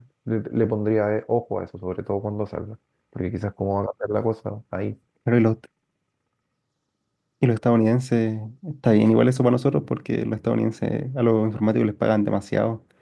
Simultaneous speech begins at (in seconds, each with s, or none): none